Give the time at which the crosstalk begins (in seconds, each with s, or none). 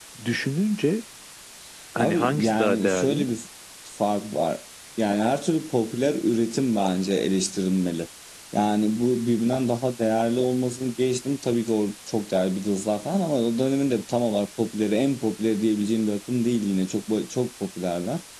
2.0 s